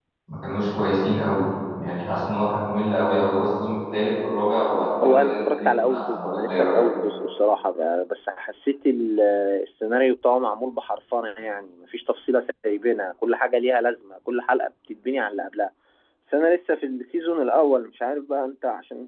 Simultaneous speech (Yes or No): Yes